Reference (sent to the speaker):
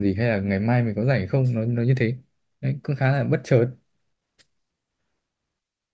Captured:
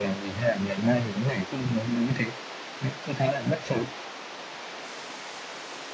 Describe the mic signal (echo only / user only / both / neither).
echo only